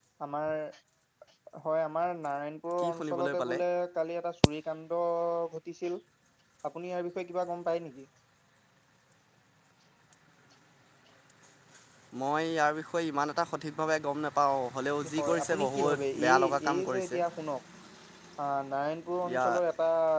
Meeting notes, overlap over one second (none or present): present